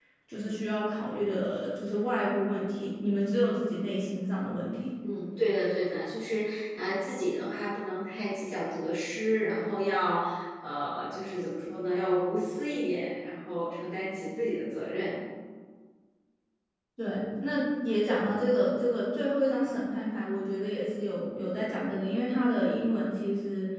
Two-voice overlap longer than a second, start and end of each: none

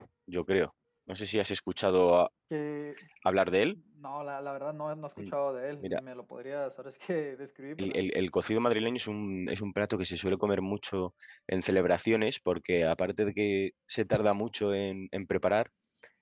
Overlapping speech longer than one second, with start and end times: none

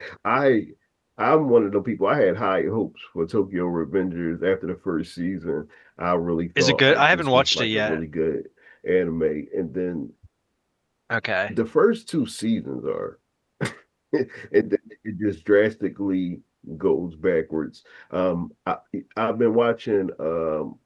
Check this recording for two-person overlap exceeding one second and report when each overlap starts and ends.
6.6-8.0

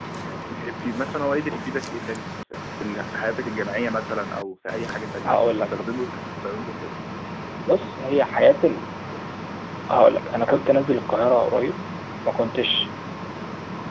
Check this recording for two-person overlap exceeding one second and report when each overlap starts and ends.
none

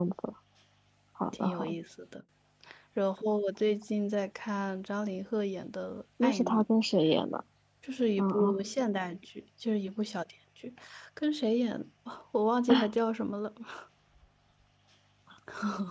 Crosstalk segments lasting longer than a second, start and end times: none

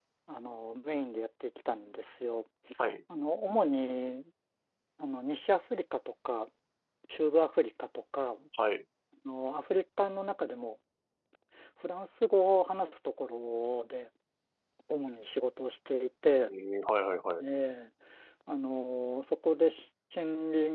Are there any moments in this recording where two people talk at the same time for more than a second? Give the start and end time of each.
none

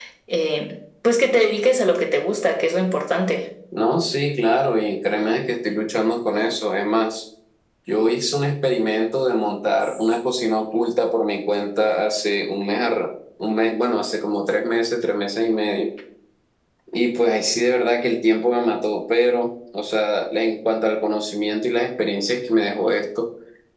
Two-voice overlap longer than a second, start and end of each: none

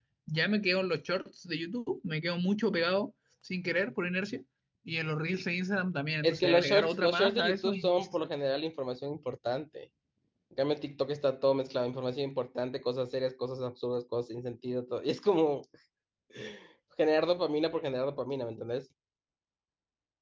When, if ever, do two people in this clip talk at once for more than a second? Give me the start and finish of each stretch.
6.2-8.2

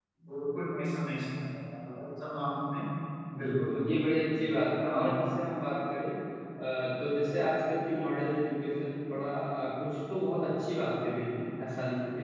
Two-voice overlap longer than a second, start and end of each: none

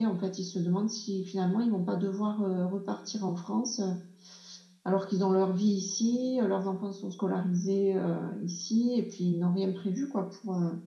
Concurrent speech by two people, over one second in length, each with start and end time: none

